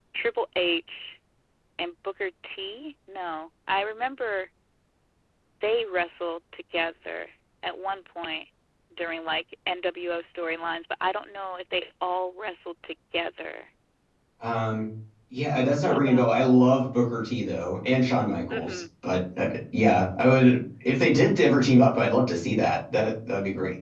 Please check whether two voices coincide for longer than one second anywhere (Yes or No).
No